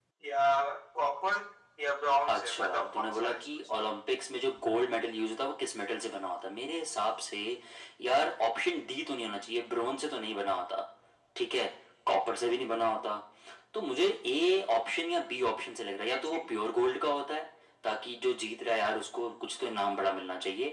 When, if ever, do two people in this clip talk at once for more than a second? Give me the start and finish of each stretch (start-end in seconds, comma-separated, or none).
2.3-3.6